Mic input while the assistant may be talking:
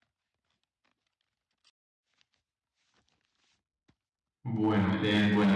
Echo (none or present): none